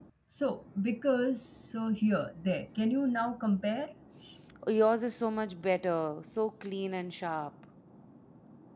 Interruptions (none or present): none